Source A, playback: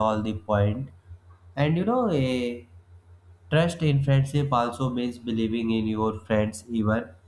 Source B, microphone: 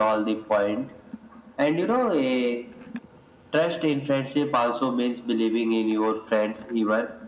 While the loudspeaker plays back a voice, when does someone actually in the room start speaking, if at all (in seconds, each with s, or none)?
none